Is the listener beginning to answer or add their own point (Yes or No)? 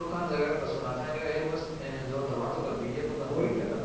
Yes